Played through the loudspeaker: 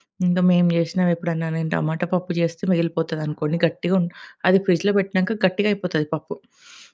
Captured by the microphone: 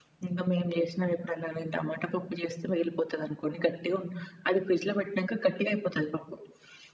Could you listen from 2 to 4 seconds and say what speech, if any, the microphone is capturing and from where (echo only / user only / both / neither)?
echo only